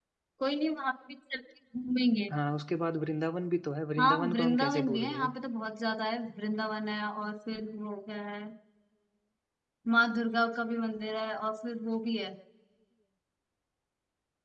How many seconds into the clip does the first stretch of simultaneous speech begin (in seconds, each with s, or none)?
4.0 s